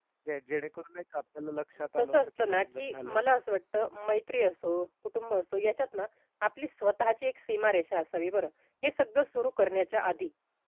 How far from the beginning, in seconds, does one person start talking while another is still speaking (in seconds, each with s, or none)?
2.0 s